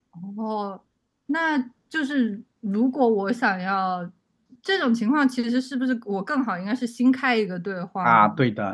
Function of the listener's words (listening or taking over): taking over